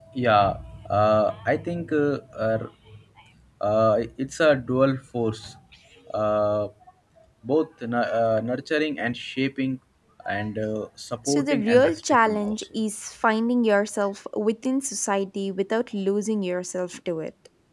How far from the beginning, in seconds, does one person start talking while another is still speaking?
11.2 s

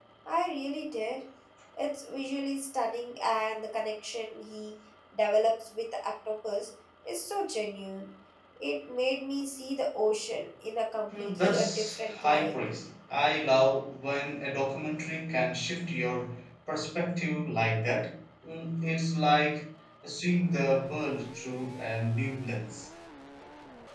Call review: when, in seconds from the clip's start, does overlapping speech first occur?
11.1 s

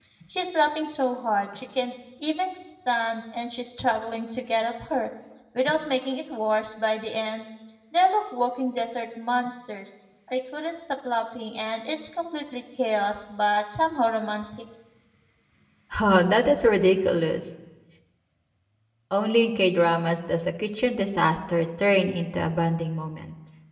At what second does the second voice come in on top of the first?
none

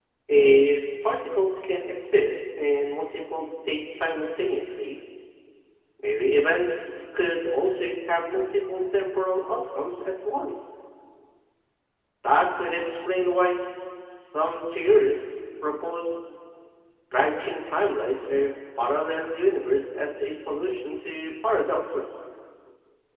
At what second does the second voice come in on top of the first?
none

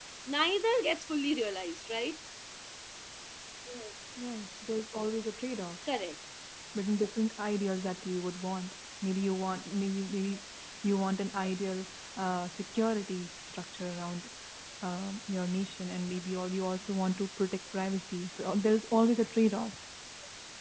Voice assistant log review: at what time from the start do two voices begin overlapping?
none

